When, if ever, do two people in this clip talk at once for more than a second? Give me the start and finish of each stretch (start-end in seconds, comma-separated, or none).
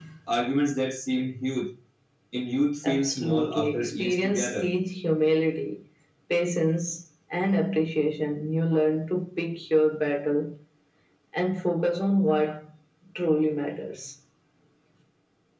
2.8-4.7